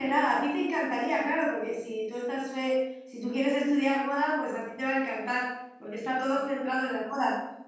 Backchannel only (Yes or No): Yes